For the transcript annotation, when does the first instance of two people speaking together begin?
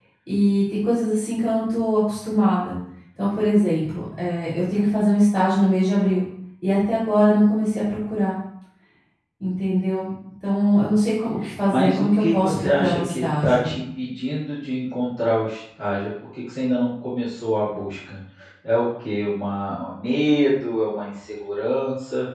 11.7 s

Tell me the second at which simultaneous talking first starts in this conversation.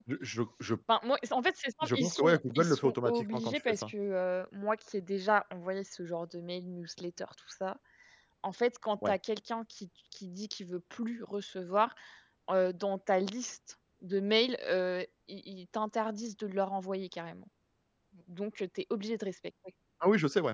1.8 s

